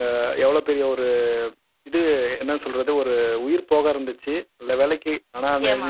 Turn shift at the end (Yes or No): No